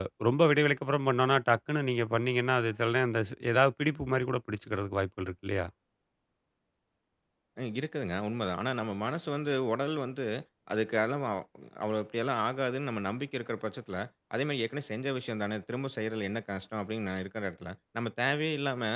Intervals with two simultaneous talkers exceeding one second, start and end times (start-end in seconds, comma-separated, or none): none